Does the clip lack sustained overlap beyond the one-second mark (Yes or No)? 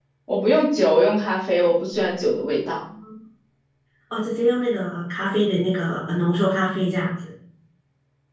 Yes